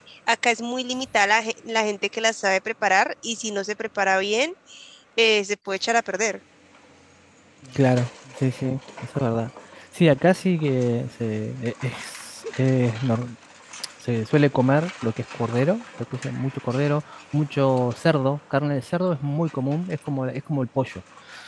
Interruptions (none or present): none